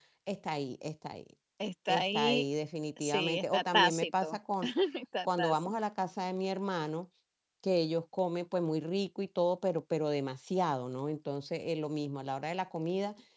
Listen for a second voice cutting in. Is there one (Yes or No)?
Yes